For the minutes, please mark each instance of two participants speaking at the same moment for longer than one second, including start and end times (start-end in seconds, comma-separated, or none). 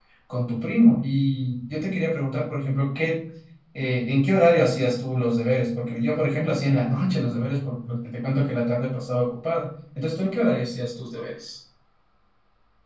none